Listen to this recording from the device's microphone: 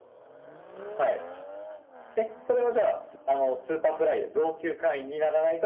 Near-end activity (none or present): none